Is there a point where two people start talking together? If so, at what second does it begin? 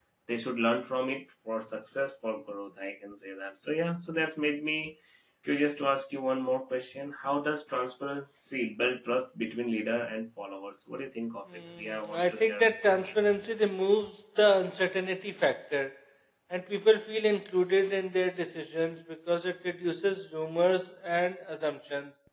11.8 s

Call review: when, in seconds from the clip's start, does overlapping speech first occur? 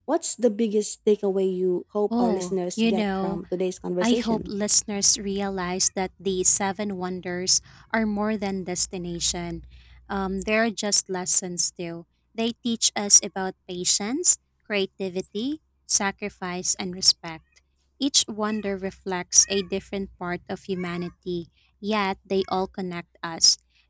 2.2 s

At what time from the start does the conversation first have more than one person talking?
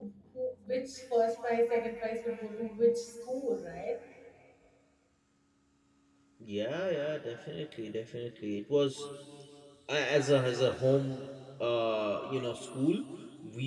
none

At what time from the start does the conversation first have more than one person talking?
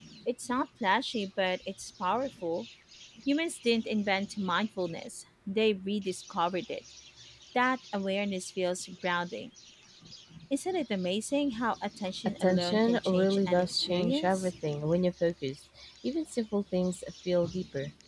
12.4 s

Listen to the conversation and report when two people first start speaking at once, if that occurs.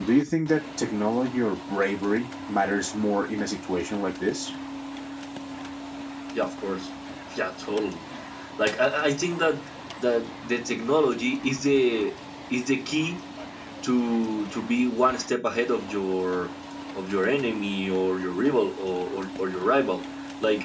none

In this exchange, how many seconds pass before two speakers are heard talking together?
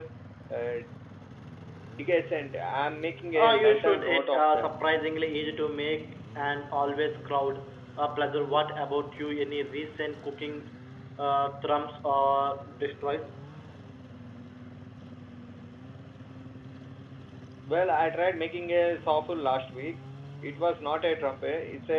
3.3 s

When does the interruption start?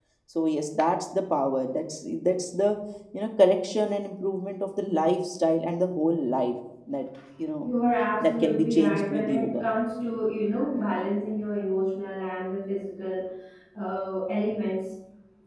8.2 s

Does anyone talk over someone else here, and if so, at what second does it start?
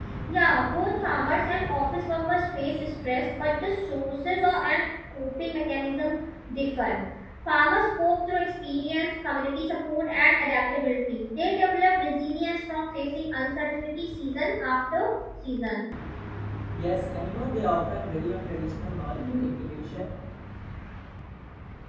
none

